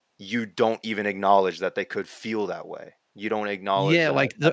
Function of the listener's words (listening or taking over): taking over